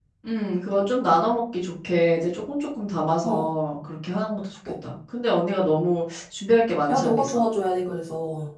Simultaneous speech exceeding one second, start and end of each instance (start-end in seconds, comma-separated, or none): none